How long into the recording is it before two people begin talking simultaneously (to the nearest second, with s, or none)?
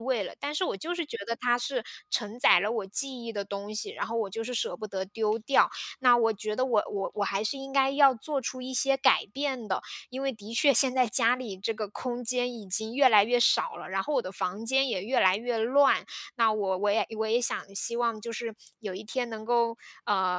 none